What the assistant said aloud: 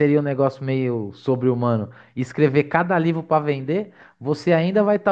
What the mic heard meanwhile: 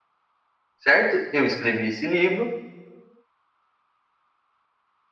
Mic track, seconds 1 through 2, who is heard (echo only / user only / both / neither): user only